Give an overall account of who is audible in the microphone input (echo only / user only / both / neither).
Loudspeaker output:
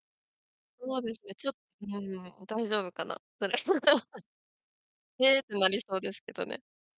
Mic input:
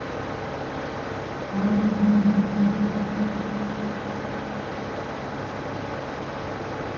user only